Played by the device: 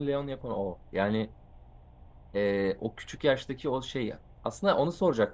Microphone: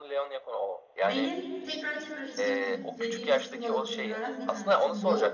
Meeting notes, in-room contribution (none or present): present